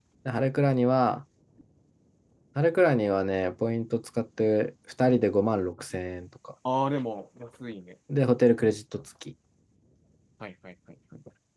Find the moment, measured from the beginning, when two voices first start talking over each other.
none

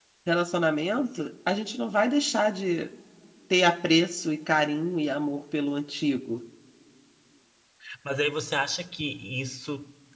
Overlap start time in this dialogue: none

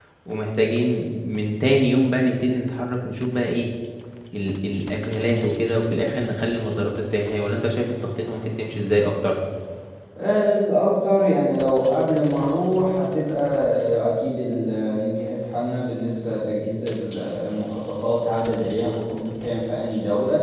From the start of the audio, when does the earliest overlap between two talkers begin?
none

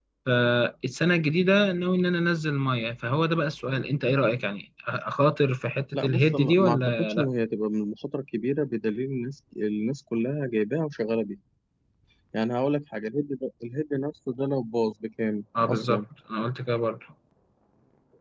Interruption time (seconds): 6 s

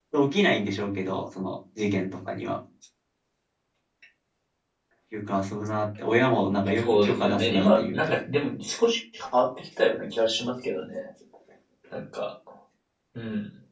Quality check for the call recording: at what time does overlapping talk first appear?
7 s

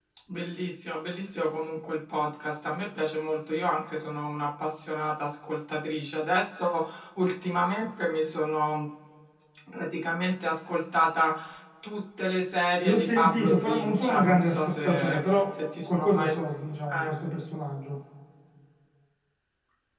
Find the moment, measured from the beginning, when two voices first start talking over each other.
13 s

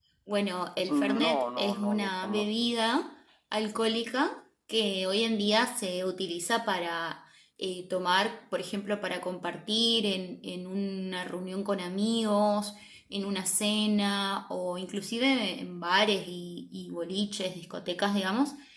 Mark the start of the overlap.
1 s

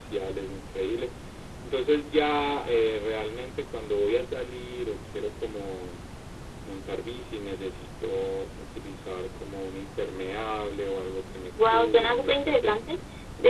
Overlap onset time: 12 s

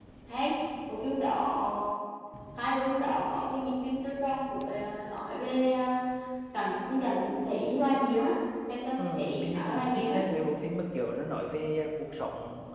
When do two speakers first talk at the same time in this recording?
9 s

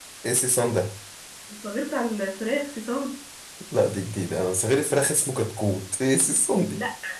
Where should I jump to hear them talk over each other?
none

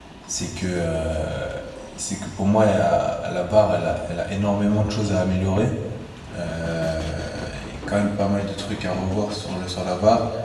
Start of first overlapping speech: none

